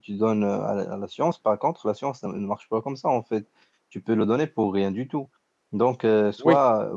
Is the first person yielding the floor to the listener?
No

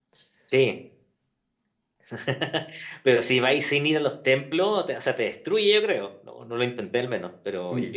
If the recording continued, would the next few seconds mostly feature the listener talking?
Yes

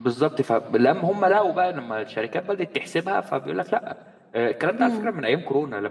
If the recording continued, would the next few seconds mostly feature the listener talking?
No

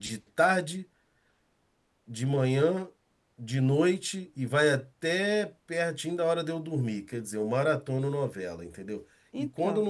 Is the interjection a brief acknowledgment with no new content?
Yes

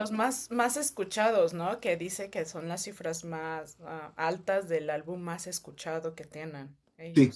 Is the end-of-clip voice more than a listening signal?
Yes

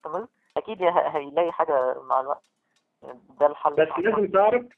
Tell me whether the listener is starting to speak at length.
Yes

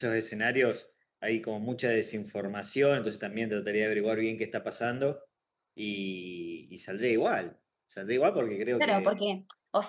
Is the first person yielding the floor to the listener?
Yes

